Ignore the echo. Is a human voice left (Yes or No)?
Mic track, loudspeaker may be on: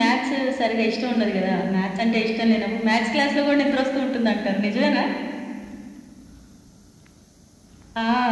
No